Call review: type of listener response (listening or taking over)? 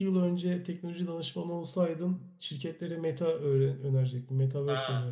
taking over